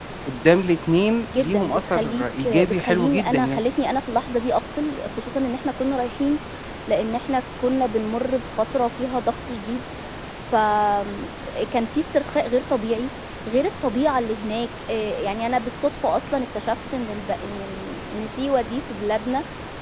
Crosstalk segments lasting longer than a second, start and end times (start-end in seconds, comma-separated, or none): 1.2-3.6